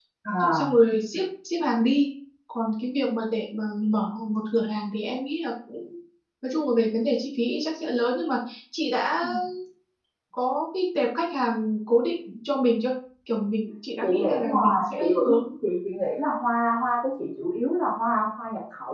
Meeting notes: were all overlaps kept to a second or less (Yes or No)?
No